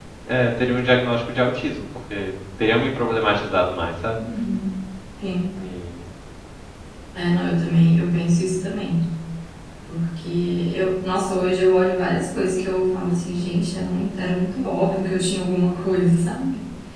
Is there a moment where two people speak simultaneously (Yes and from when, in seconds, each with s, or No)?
No